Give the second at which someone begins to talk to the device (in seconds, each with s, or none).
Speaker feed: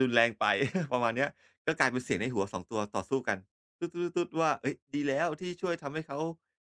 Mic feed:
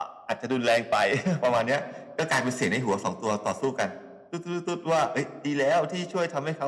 none